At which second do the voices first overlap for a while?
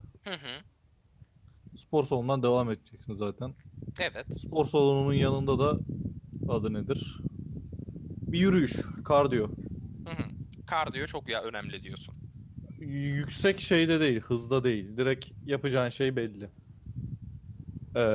none

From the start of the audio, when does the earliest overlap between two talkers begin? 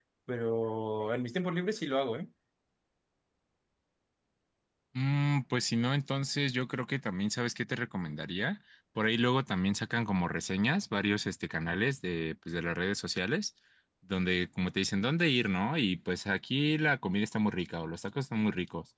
none

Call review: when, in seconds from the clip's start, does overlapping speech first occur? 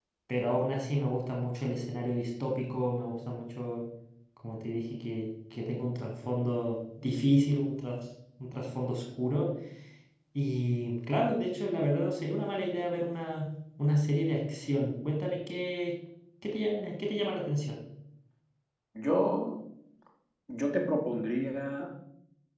none

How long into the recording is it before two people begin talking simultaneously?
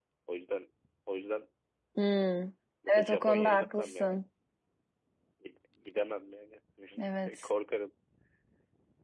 2.9 s

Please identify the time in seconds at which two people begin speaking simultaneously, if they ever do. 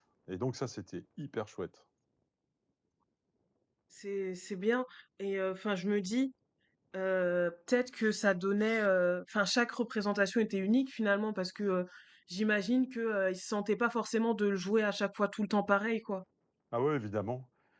none

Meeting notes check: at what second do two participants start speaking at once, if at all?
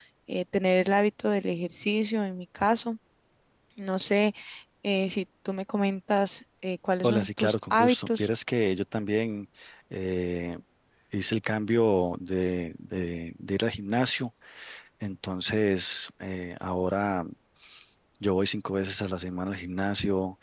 7.0 s

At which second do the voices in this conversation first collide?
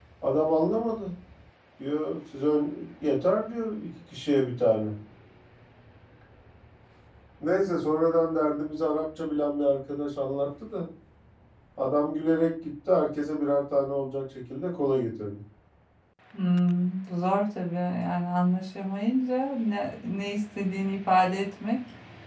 none

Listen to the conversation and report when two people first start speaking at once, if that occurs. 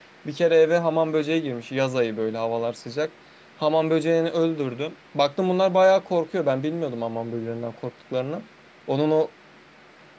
none

